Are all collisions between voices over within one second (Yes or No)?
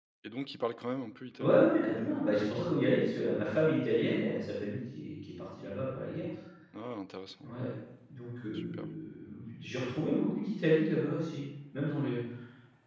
Yes